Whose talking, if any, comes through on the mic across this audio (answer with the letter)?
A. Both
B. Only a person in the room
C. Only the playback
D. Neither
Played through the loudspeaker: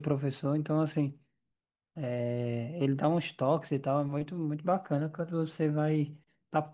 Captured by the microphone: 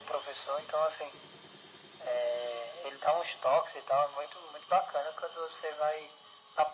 C